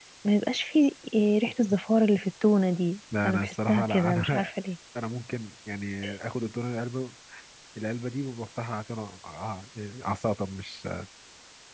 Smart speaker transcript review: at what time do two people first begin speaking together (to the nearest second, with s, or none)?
3 s